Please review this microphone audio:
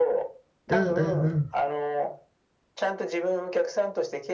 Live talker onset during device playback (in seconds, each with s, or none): 0.7 s